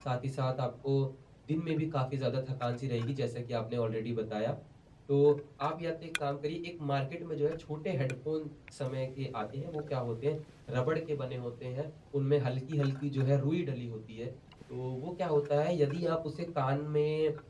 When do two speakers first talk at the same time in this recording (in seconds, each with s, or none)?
none